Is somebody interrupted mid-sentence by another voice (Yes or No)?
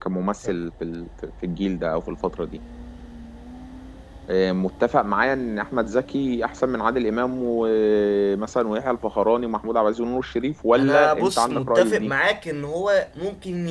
Yes